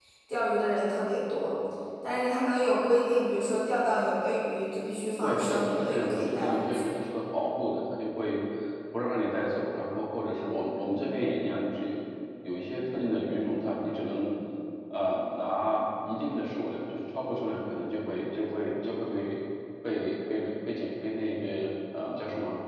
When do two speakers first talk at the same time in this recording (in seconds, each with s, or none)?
5.2 s